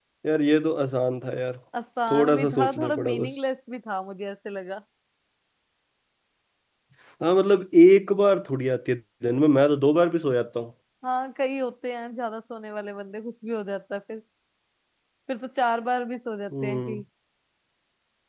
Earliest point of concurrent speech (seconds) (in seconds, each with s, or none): 2.1 s